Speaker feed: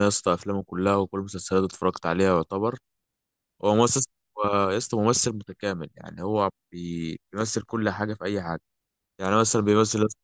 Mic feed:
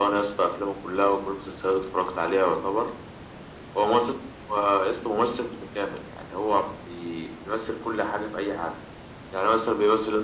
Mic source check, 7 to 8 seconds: echo only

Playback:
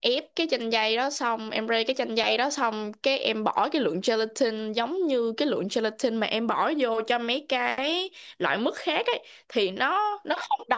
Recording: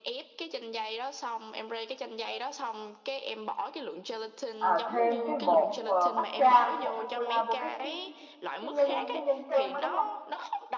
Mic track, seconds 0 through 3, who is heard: echo only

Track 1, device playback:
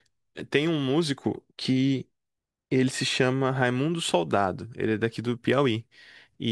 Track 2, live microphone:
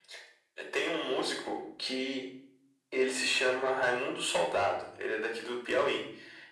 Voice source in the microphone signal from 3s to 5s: echo only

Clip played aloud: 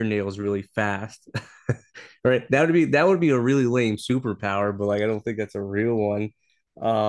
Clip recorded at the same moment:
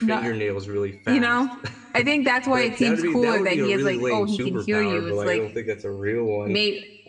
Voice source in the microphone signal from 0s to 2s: both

